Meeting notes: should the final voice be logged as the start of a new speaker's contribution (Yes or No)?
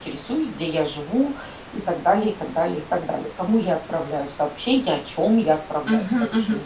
Yes